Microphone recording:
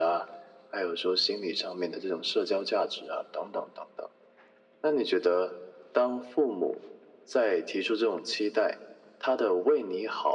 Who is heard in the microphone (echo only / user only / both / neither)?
echo only